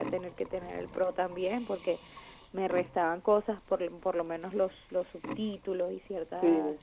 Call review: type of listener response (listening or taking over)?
taking over